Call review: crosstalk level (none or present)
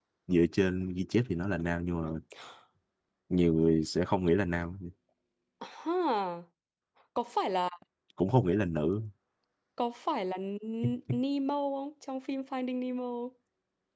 none